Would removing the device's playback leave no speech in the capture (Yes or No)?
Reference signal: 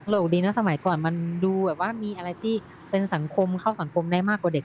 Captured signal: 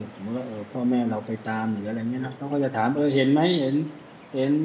No